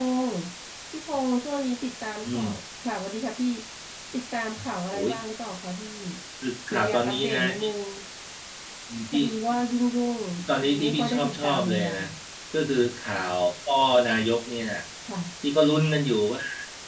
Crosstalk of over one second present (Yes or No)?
Yes